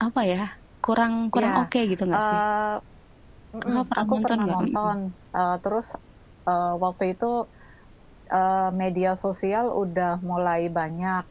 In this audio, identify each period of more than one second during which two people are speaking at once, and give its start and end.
3.6-4.9

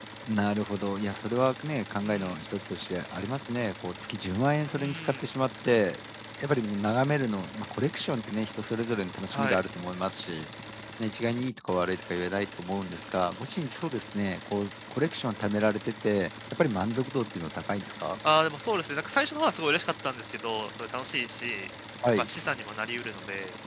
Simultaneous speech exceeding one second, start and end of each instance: none

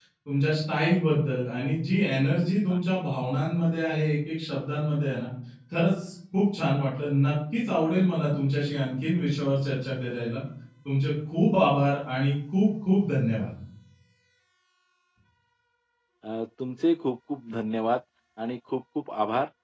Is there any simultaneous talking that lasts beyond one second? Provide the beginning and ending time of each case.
none

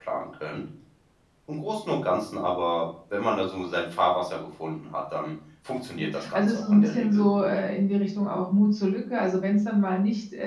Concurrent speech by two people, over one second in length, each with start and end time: 6.0-7.5

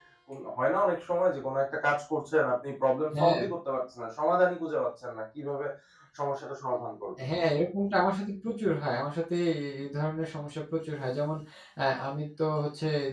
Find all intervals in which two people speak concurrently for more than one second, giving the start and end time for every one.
none

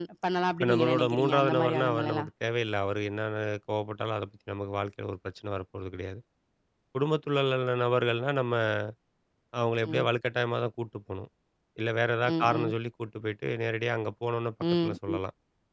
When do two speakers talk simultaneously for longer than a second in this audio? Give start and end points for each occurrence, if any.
0.6-2.3

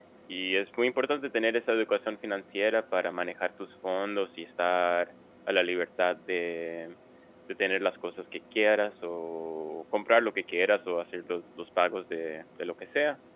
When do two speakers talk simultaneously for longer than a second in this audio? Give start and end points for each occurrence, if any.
none

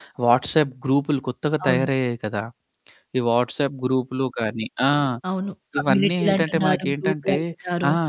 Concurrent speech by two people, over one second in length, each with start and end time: 5.8-7.3

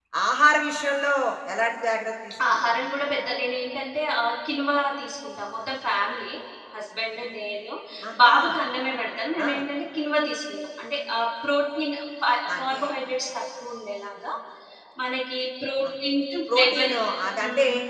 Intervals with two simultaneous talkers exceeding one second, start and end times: none

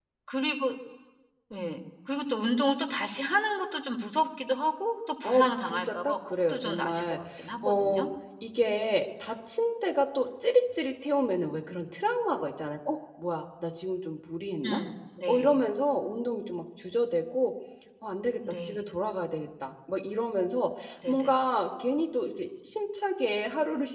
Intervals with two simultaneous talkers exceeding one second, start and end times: 5.2-7.2

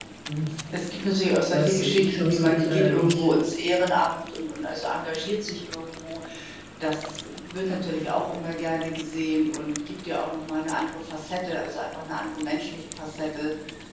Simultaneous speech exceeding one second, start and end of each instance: 1.5-3.3

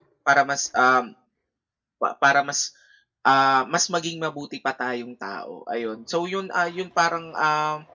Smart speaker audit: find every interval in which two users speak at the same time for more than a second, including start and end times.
none

